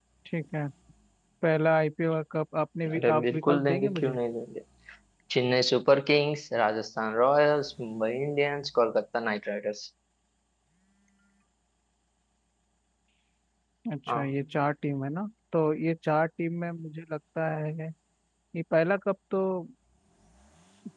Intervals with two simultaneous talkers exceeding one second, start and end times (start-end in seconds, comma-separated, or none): 3.0-4.2